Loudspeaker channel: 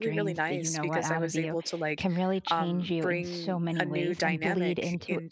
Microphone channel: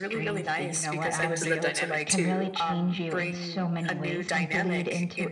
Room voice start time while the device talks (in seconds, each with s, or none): 1.2 s